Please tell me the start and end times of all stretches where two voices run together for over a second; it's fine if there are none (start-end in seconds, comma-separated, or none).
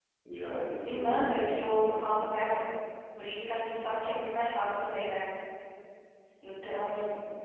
0.8-2.2